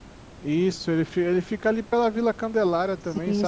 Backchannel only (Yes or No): No